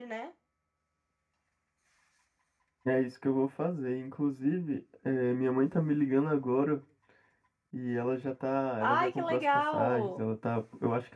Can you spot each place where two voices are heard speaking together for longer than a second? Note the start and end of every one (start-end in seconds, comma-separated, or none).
8.8-10.2